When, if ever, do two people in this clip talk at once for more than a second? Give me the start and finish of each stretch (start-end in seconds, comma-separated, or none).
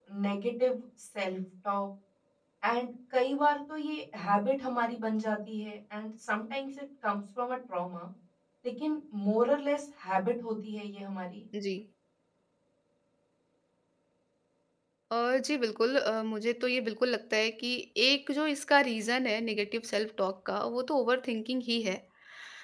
none